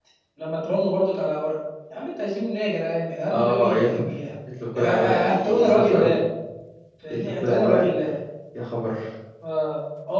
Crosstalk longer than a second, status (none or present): present